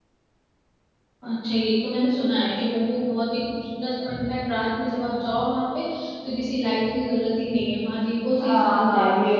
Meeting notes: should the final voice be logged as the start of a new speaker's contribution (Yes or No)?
Yes